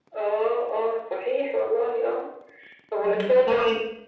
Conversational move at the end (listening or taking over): listening